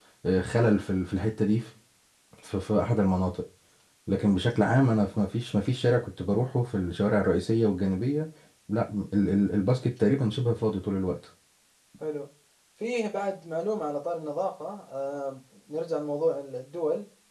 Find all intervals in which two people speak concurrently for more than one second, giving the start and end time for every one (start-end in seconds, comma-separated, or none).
none